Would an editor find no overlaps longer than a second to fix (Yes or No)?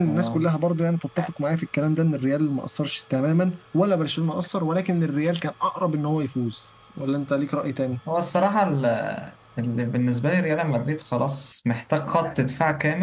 Yes